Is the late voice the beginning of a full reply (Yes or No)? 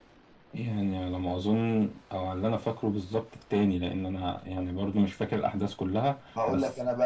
Yes